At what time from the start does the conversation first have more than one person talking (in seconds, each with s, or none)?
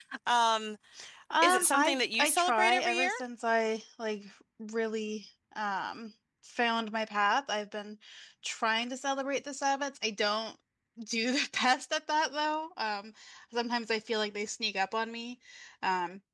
1.4 s